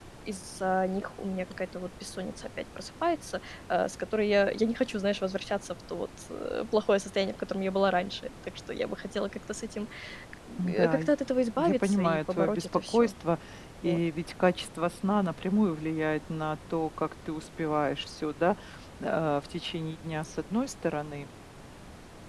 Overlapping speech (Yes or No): Yes